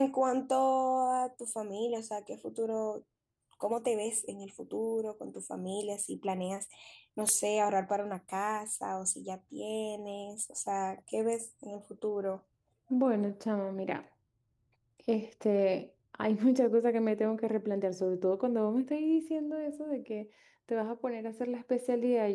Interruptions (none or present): none